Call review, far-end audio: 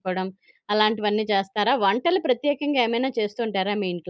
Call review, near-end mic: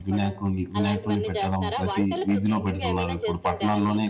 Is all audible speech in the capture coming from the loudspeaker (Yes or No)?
No